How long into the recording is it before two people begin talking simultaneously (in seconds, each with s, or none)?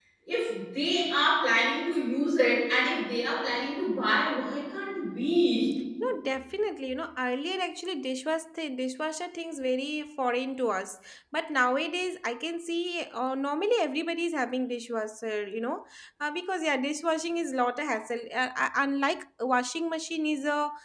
none